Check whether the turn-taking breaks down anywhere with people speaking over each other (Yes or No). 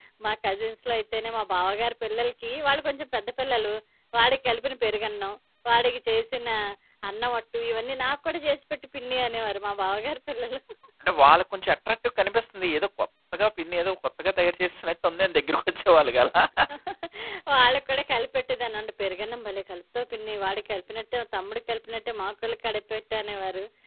No